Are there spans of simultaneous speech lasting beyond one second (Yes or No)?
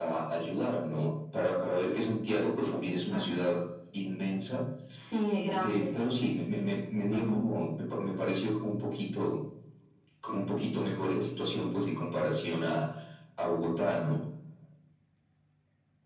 No